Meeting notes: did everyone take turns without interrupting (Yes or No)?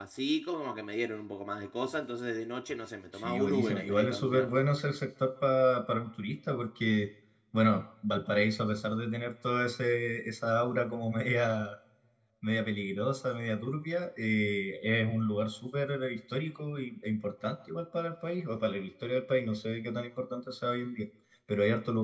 No